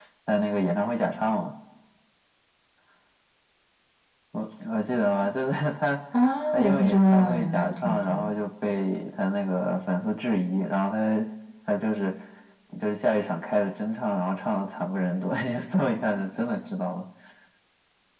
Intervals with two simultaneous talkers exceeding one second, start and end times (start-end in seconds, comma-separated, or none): 6.5-8.3